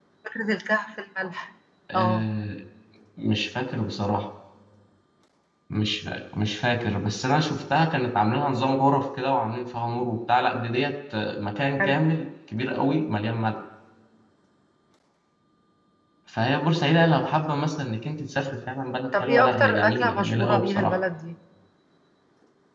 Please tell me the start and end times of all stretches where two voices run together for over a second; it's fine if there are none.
19.2-21.0

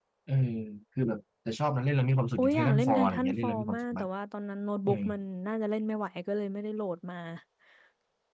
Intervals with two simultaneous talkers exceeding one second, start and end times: 2.4-4.1

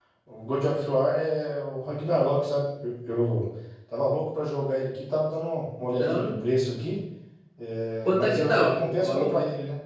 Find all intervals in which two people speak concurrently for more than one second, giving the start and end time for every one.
8.0-9.3

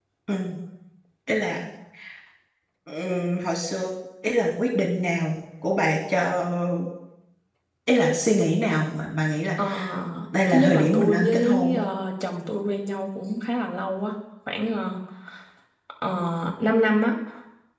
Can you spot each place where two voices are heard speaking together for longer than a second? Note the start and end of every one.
10.5-11.8

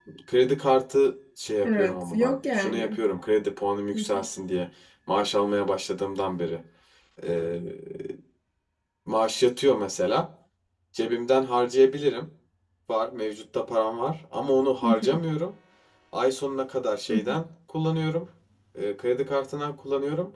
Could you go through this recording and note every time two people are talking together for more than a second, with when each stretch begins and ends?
1.6-3.0

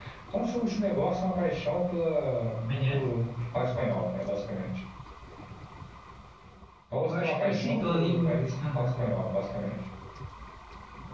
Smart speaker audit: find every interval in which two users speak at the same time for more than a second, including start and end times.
7.1-9.0

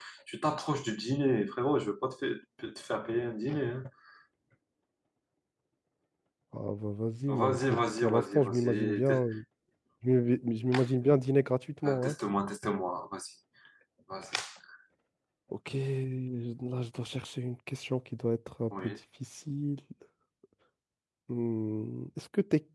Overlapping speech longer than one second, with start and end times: 7.3-9.2

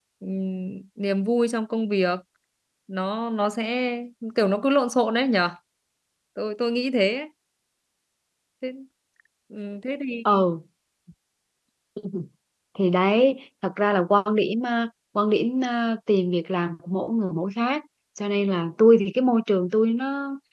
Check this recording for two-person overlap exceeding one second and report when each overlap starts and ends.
none

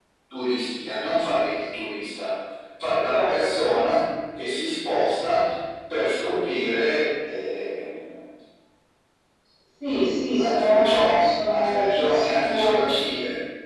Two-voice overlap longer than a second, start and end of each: 10.4-12.9

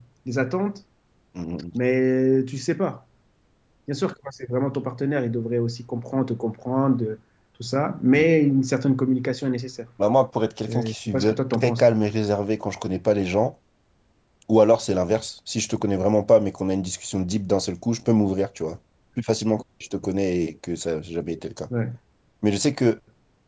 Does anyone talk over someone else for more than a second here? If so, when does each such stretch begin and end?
10.7-11.9

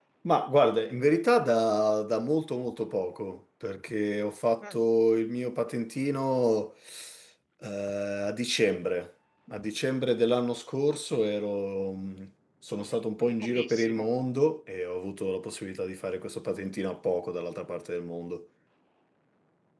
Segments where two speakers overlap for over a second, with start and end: 12.8-14.0

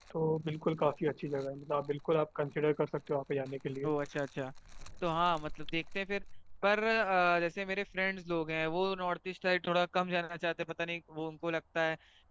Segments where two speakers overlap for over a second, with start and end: none

